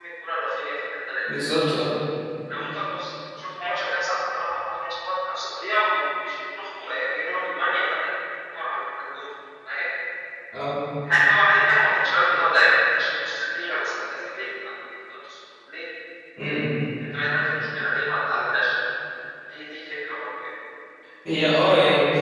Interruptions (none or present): none